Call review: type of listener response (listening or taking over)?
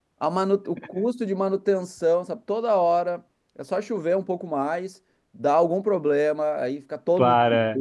listening